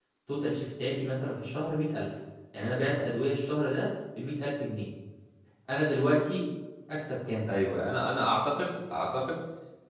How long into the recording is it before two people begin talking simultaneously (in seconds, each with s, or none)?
none